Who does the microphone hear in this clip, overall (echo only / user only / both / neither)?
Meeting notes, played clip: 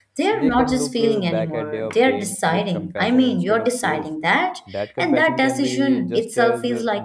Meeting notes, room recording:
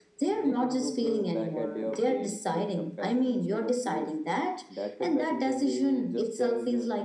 echo only